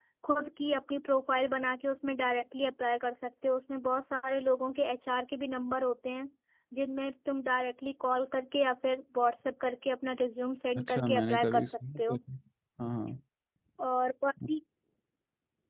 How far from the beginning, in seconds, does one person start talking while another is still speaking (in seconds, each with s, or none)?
10.8 s